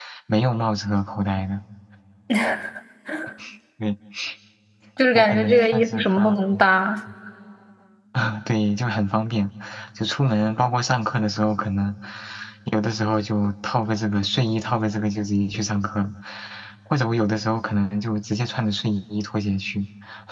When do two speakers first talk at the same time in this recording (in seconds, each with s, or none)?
5.1 s